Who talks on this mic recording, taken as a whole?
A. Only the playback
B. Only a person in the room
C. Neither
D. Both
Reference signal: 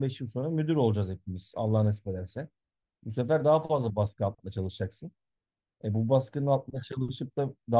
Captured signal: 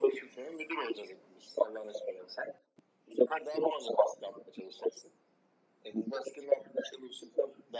A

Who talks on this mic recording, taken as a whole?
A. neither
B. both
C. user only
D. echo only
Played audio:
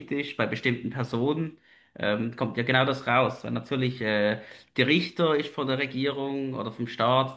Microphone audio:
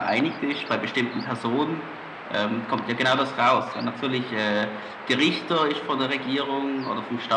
D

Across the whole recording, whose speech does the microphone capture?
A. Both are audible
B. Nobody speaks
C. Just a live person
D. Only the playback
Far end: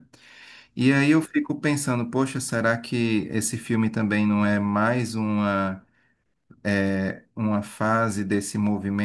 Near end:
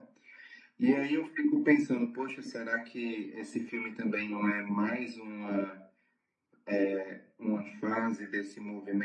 D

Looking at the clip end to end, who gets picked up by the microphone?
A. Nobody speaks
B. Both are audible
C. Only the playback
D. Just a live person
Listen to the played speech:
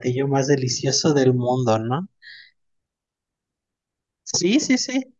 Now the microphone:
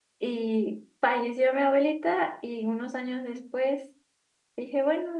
D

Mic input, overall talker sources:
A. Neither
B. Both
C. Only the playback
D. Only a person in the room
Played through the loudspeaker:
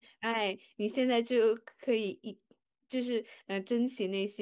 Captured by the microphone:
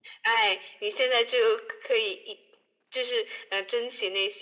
C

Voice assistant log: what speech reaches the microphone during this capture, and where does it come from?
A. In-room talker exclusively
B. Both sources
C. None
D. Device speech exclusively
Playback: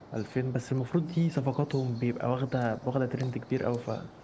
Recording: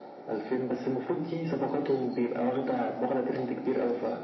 D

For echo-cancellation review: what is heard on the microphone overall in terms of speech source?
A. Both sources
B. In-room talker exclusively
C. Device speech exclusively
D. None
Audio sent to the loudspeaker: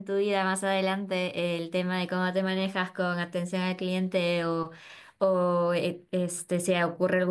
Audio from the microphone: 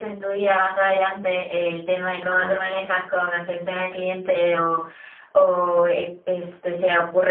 A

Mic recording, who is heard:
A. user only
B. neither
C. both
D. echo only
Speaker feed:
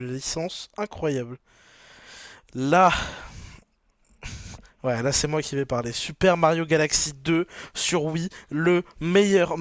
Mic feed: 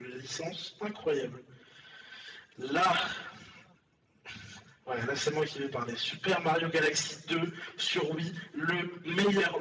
D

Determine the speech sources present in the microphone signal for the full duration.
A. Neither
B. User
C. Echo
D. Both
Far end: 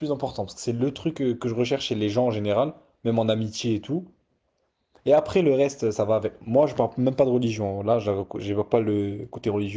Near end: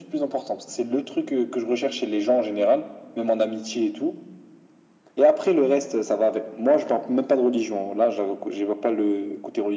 C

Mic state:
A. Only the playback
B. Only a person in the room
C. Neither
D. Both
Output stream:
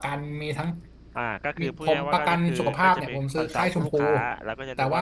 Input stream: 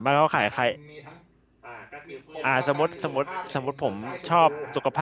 D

